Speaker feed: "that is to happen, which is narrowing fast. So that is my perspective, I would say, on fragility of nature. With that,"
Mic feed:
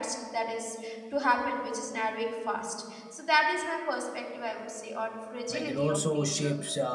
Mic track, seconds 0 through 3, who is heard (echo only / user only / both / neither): echo only